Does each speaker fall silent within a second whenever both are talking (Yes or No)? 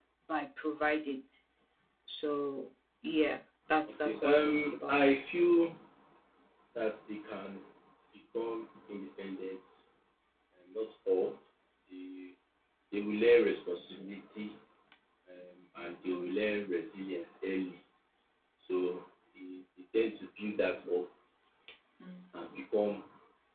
No